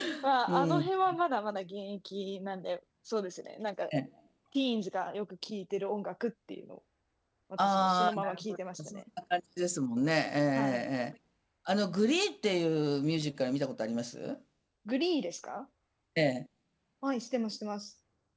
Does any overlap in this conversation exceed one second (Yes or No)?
Yes